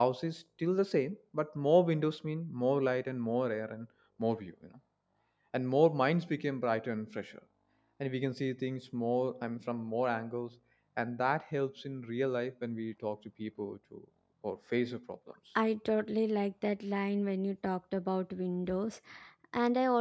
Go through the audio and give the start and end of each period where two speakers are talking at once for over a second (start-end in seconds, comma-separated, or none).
none